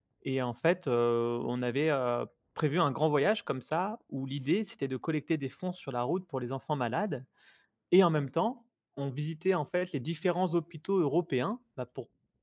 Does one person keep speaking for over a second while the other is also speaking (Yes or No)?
No